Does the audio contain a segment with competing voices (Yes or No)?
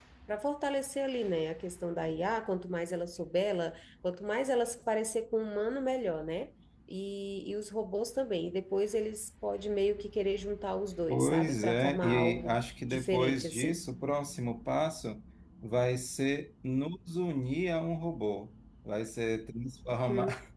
Yes